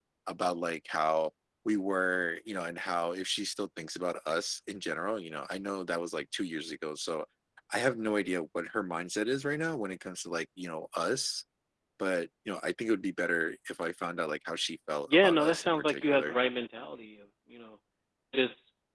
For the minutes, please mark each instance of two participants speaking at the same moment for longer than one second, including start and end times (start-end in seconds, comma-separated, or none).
15.1-16.4